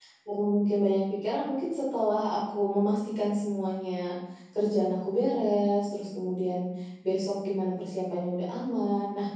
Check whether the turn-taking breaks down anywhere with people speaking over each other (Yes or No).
No